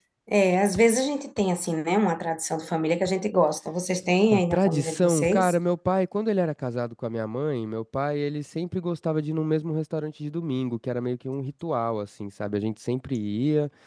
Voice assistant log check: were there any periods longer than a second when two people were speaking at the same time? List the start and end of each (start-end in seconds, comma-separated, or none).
4.3-5.5